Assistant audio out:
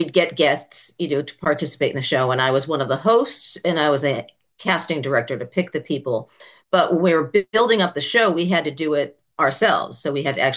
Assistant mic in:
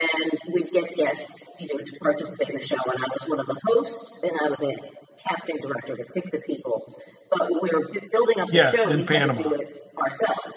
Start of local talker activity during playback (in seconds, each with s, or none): 8.5 s